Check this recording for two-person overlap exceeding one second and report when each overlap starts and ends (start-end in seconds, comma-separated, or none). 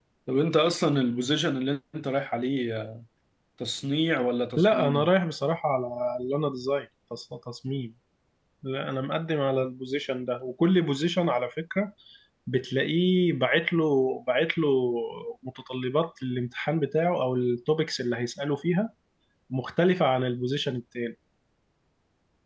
none